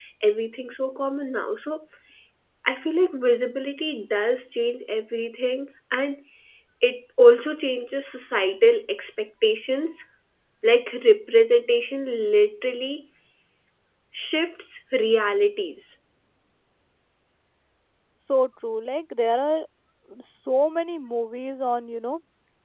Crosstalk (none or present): none